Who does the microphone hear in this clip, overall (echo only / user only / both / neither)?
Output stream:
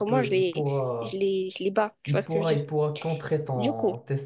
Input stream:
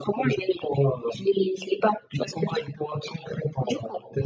echo only